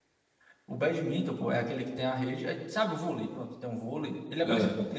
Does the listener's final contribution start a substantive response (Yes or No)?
No